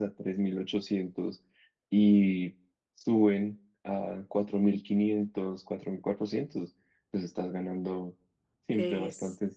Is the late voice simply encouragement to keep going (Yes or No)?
No